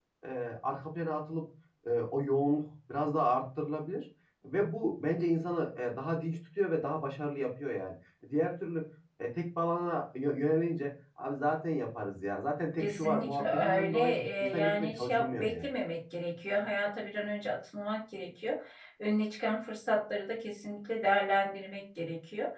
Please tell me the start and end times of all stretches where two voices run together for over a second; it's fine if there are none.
12.8-15.7

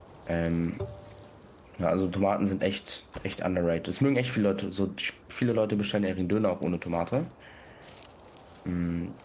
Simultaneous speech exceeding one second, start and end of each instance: none

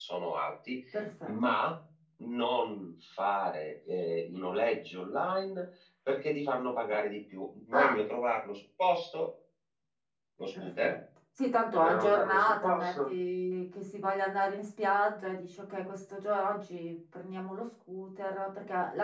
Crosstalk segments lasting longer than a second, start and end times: 11.8-13.1

